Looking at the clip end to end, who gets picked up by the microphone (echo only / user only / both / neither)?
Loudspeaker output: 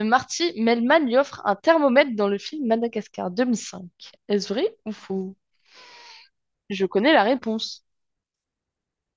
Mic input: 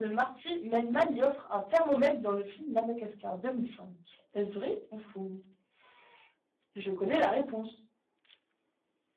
echo only